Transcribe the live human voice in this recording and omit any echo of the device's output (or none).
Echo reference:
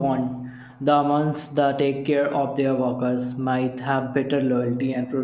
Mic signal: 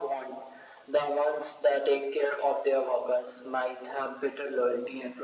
none